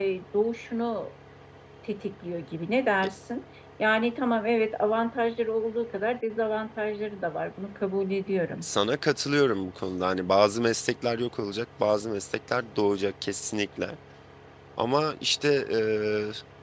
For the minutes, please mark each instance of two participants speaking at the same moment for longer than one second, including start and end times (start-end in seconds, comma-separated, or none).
none